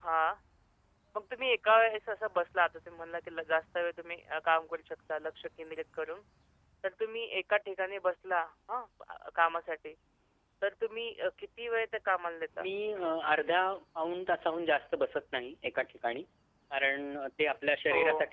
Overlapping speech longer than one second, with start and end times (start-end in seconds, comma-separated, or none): none